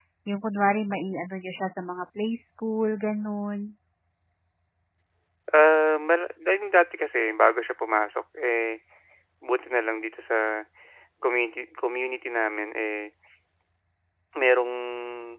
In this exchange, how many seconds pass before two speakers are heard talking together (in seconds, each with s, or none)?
none